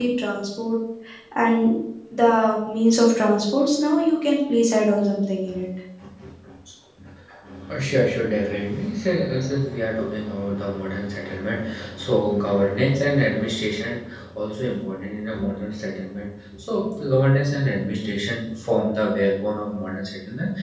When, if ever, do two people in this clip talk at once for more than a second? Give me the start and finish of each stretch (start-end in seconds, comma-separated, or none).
none